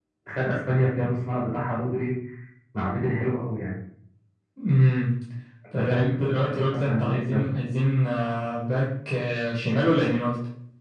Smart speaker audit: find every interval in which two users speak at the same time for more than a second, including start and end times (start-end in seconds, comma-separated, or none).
5.8-7.5